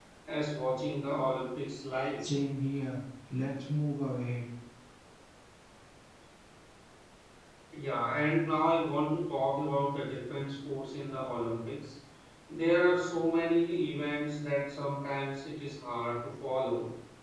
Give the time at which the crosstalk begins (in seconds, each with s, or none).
none